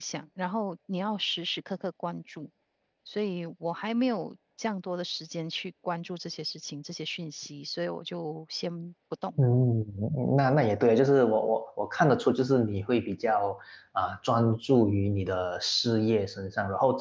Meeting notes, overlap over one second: none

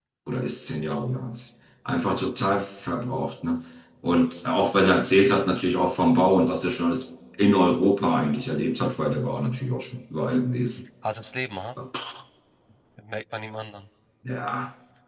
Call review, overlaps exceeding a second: none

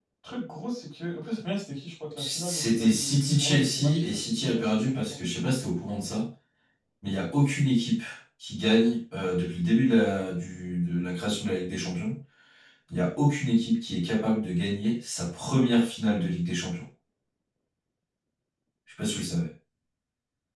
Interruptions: present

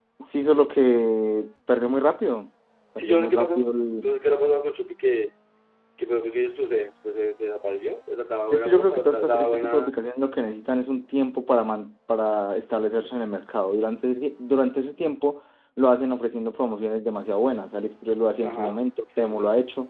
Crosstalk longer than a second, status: present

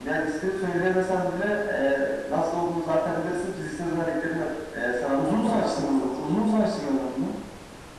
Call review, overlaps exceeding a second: present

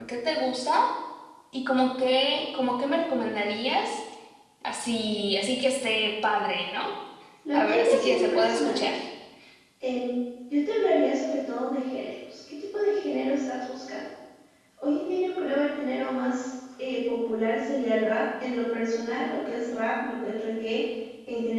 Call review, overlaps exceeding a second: present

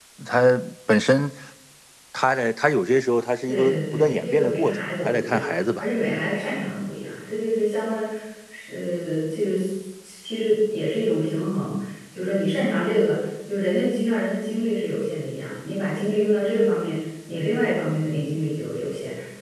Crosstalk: present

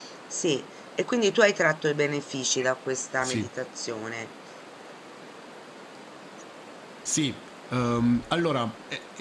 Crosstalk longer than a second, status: none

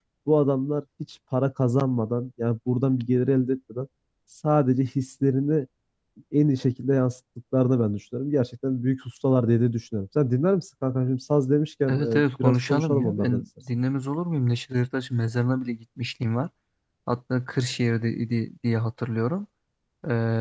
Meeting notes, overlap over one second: present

